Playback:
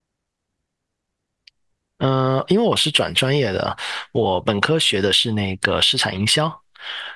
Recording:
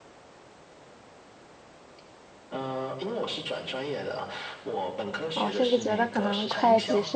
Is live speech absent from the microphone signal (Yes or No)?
No